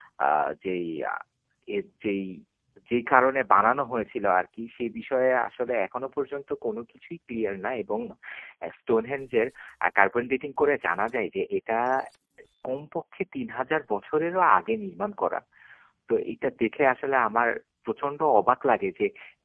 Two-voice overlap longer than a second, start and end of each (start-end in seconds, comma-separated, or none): none